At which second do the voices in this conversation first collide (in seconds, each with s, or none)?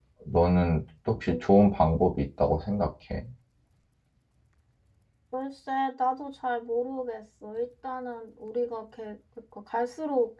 none